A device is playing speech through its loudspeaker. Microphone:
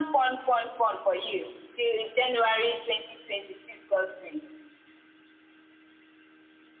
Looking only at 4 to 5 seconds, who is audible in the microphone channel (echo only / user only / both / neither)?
echo only